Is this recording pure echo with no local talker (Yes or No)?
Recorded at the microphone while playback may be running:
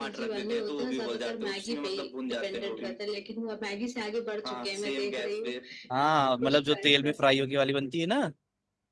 No